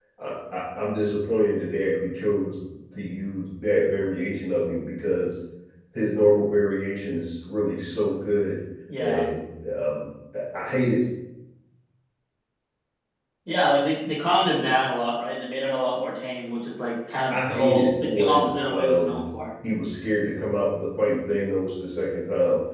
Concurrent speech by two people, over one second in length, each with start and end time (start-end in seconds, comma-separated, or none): 17.3-19.2